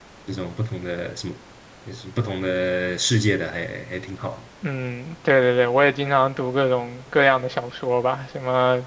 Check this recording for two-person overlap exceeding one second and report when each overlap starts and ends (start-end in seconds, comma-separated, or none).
none